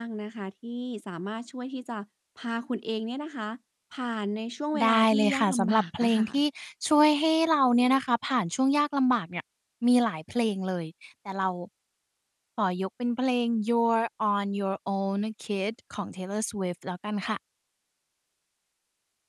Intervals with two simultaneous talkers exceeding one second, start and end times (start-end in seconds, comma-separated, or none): 4.8-6.3